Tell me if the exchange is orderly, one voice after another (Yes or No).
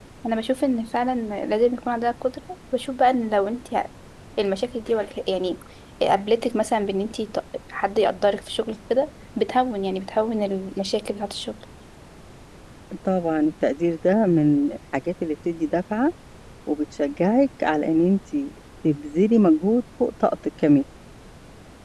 Yes